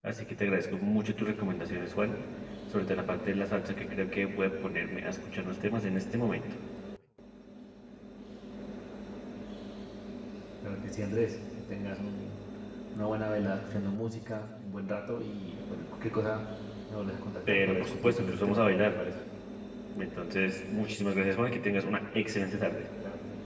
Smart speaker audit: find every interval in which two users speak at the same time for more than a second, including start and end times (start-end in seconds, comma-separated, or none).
17.5-19.0